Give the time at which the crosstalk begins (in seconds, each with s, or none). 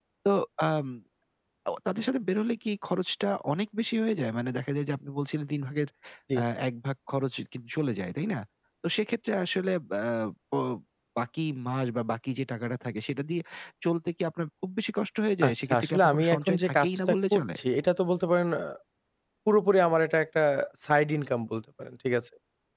15.4 s